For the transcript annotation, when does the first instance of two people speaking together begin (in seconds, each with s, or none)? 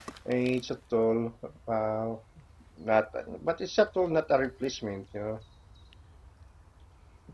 none